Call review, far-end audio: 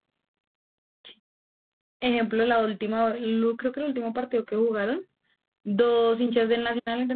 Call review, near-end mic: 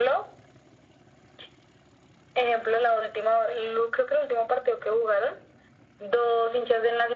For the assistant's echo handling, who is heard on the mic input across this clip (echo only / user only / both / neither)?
echo only